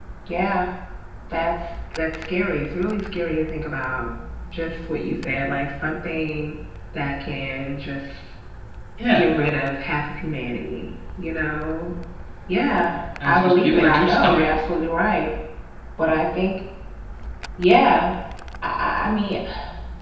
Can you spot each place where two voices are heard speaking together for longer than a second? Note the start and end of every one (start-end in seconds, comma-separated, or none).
13.2-14.5